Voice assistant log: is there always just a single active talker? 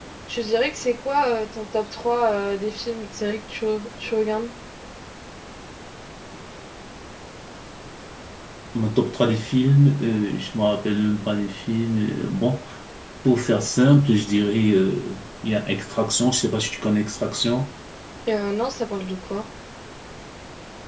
Yes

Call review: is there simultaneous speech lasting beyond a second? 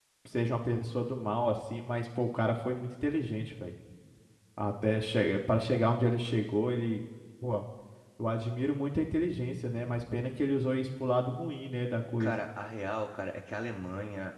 No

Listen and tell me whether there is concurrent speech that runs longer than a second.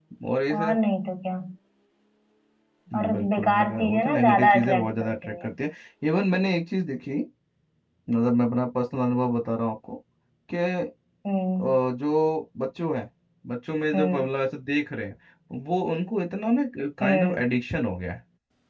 Yes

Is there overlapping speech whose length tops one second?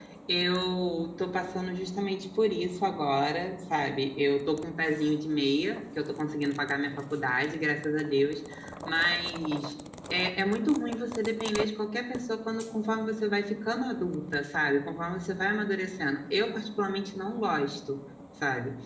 No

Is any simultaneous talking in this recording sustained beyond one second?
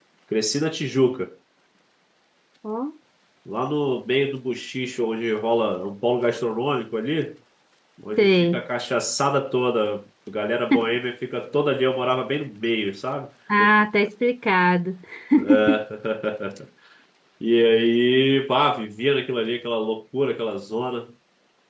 No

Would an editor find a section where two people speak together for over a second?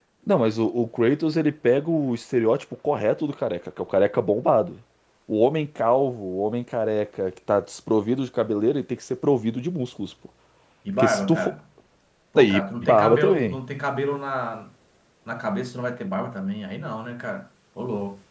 Yes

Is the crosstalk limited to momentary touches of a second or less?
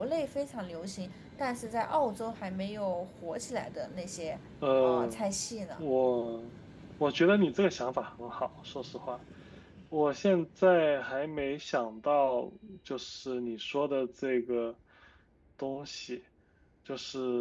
Yes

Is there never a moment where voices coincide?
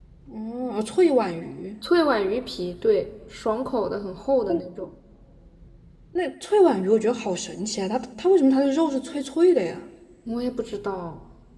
Yes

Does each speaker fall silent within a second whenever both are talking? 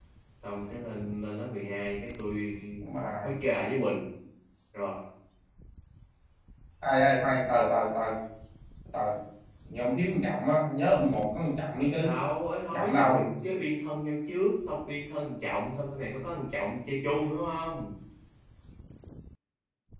Yes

